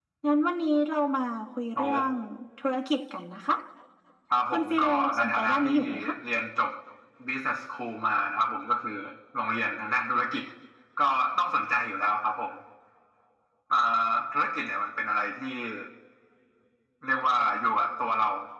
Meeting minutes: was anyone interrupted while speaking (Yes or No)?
Yes